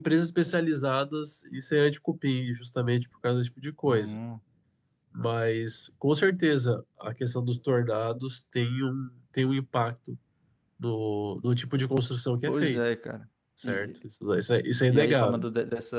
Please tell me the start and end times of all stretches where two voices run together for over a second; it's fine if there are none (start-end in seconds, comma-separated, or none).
none